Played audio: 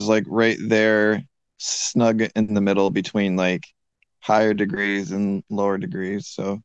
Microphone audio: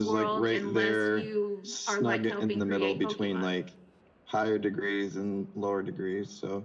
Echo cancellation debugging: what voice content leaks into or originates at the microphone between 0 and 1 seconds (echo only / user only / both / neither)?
both